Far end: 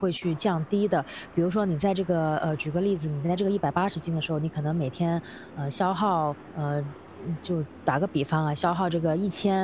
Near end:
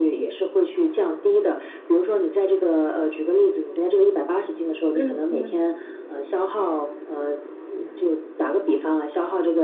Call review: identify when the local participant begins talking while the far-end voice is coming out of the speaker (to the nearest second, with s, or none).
5 s